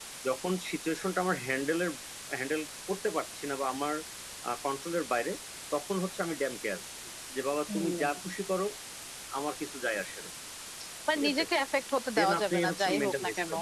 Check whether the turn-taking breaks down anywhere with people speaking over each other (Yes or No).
Yes